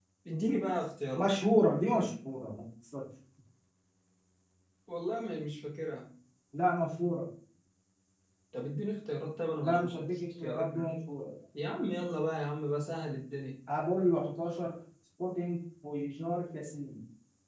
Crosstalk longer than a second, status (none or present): present